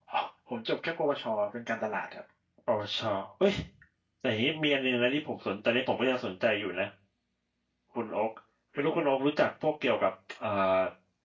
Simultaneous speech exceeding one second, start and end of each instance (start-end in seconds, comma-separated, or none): none